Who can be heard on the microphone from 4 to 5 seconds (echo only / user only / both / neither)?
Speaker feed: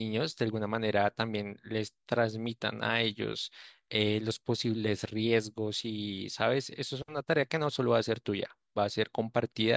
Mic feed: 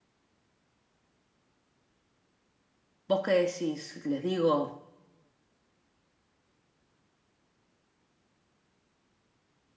user only